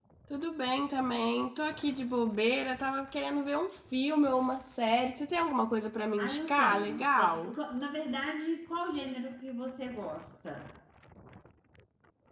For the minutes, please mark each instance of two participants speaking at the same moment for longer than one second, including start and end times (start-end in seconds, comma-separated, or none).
6.2-7.4